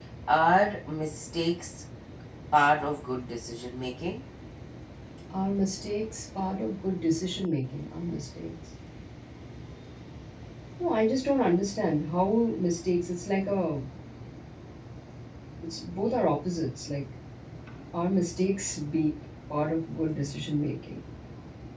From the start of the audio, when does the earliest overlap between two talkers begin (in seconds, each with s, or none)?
none